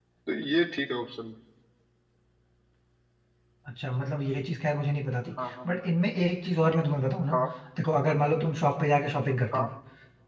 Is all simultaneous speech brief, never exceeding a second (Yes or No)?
Yes